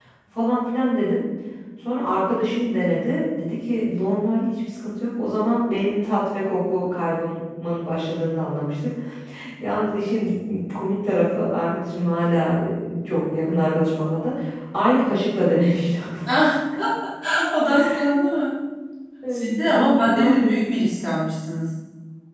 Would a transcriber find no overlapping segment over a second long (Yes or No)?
No